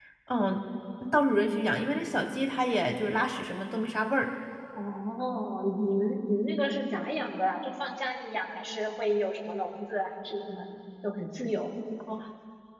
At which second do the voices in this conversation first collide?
none

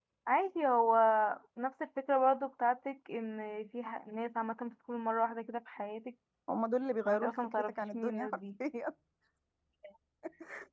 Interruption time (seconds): 7 s

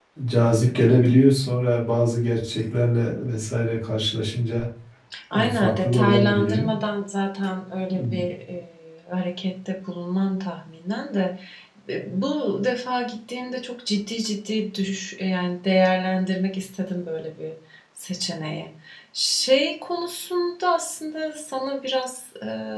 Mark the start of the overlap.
5 s

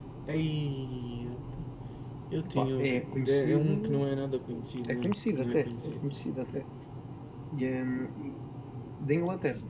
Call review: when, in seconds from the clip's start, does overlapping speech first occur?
3 s

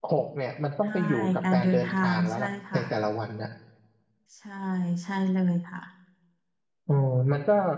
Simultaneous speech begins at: 1 s

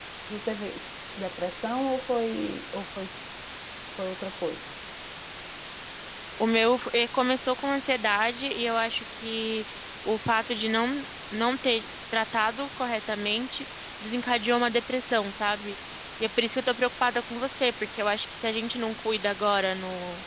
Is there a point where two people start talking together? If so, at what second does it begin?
none

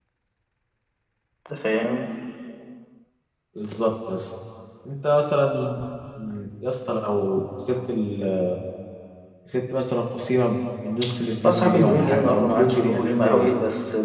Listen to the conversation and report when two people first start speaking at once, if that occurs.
11 s

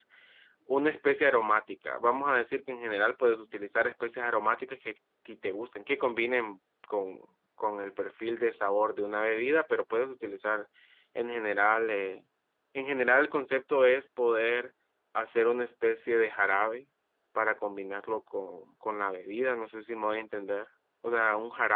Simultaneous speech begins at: none

